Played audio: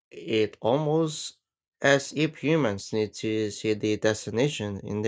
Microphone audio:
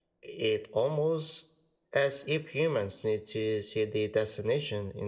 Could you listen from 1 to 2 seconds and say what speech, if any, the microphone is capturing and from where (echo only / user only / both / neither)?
echo only